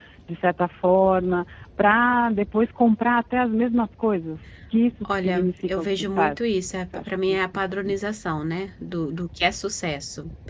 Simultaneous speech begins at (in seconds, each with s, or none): 5.0 s